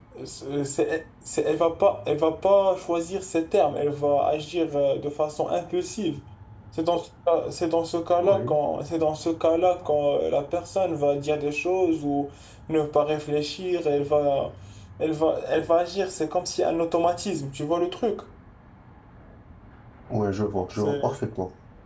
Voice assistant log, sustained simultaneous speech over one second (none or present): none